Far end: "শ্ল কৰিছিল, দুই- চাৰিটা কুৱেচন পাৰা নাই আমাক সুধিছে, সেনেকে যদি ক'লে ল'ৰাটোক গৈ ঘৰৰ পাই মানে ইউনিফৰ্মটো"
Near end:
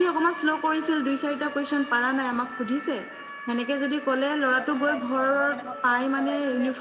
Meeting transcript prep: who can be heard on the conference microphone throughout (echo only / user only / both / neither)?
both